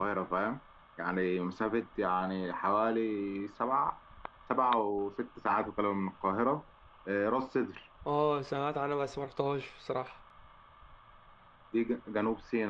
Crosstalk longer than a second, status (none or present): none